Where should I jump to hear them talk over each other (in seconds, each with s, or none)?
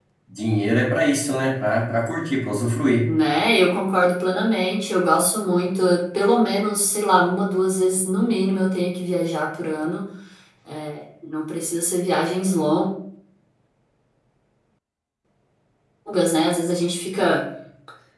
none